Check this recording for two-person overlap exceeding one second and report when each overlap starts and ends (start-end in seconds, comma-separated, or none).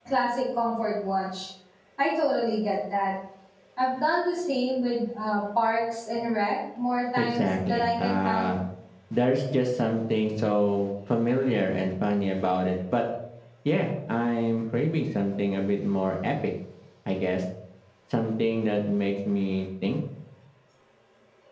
7.2-8.5